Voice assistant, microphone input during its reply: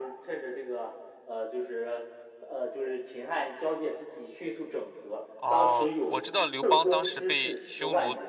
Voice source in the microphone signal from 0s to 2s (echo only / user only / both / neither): echo only